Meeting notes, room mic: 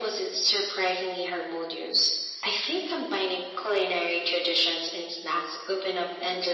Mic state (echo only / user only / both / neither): echo only